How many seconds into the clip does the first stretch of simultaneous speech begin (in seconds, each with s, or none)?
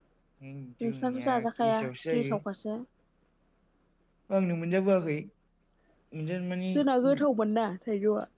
0.8 s